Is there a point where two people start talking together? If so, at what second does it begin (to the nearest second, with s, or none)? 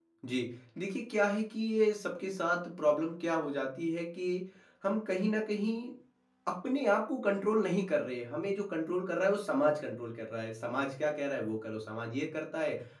none